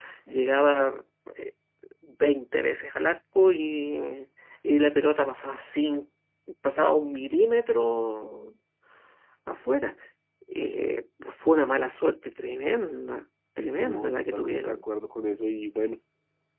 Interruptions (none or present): present